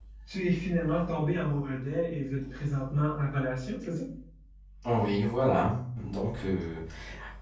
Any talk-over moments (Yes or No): No